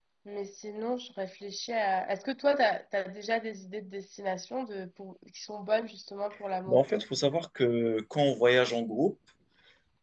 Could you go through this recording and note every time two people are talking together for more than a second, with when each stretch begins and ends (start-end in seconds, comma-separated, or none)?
none